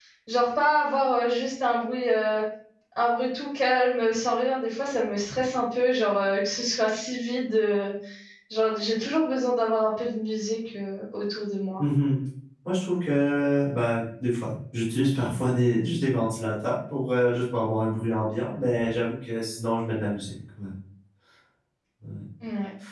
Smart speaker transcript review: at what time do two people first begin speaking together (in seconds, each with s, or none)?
none